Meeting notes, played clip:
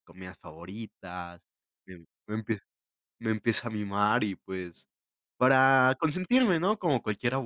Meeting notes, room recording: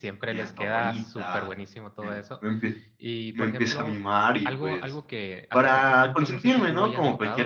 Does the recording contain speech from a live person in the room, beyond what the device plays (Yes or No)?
Yes